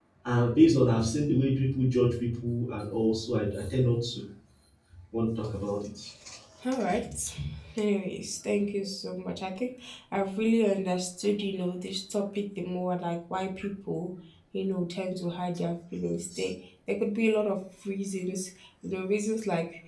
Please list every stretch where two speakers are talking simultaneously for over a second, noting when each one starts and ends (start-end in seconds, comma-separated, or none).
none